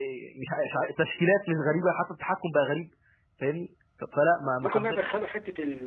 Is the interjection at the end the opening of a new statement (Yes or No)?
Yes